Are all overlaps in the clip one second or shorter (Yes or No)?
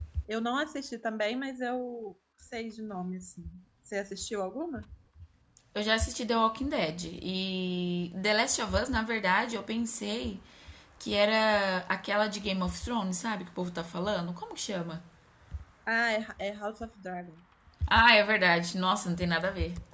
Yes